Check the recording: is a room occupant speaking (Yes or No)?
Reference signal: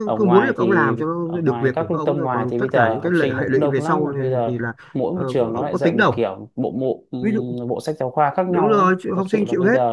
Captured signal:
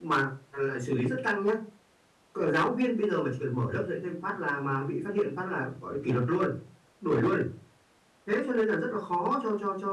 Yes